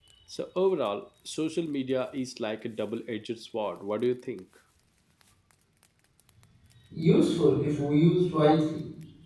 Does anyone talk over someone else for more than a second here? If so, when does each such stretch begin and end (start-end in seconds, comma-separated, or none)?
none